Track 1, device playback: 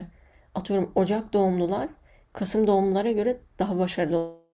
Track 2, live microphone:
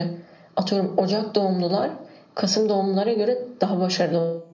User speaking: No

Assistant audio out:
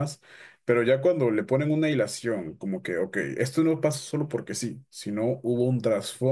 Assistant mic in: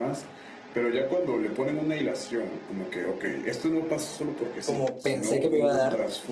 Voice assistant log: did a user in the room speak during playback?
Yes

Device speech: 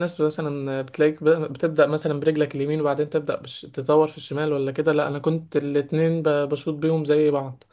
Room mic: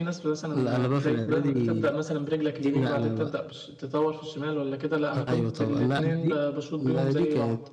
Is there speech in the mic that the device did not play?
Yes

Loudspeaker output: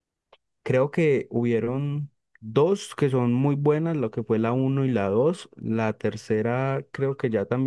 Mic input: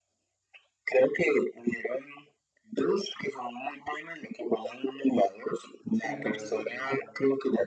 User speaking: Yes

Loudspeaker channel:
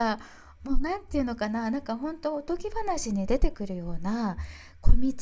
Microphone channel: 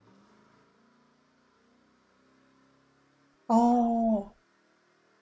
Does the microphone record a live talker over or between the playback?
Yes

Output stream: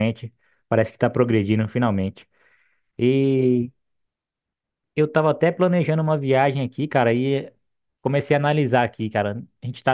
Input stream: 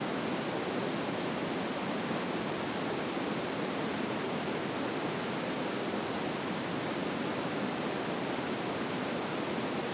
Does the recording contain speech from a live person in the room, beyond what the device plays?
No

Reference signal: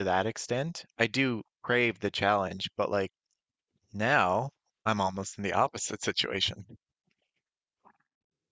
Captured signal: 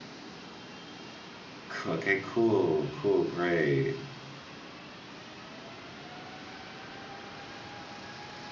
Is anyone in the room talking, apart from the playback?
Yes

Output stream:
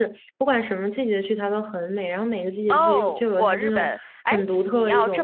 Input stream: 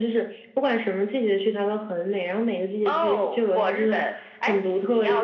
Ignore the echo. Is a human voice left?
No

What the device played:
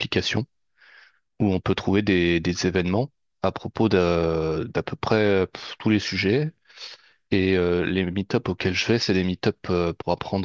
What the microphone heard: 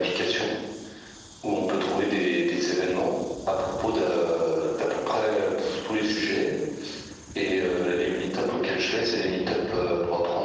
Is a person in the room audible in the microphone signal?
No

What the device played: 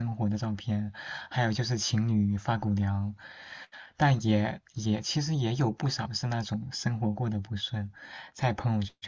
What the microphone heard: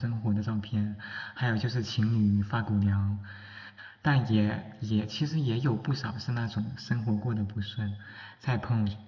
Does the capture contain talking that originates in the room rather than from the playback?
No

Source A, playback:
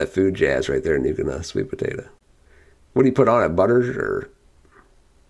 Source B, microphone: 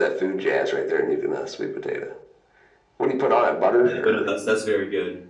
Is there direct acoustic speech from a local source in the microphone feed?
Yes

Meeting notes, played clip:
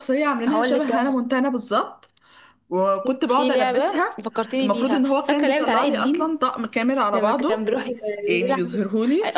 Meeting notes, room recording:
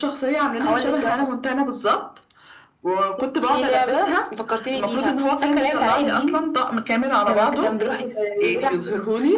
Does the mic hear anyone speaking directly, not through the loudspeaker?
No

